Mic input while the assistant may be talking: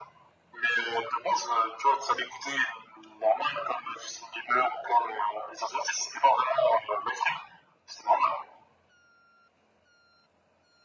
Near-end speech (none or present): none